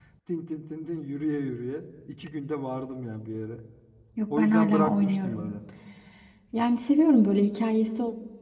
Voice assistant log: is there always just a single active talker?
No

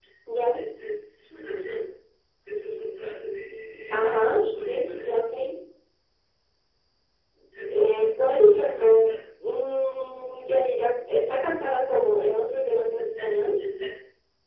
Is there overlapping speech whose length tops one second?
Yes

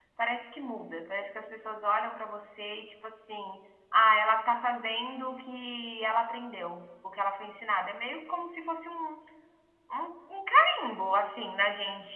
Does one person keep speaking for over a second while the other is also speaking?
No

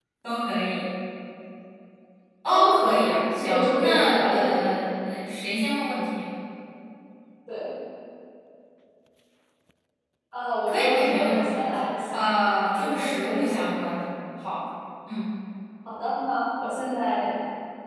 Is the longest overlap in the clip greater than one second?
Yes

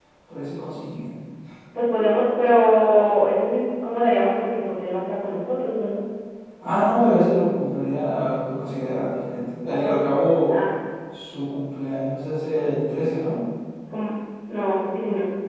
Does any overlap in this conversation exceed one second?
No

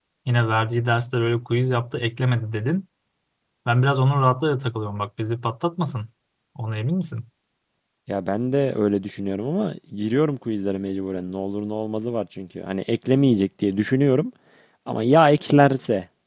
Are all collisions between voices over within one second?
Yes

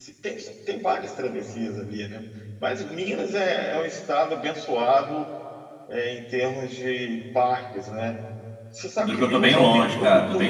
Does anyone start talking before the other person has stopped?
Yes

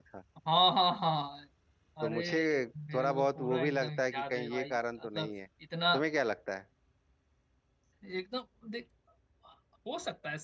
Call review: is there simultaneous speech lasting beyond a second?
Yes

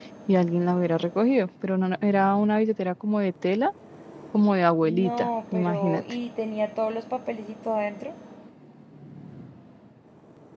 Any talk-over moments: Yes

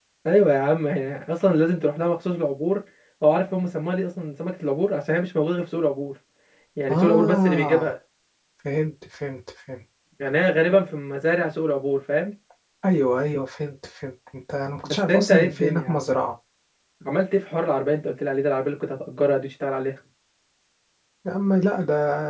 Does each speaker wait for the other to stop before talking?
No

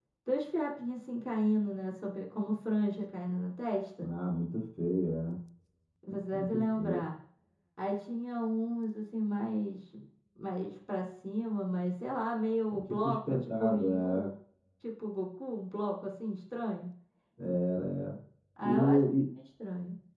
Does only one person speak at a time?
No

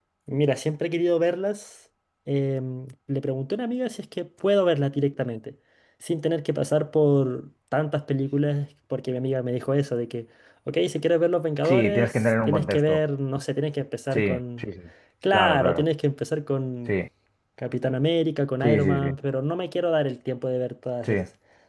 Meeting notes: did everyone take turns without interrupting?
No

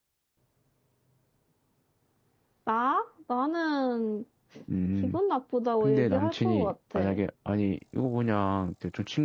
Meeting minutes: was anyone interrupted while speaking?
Yes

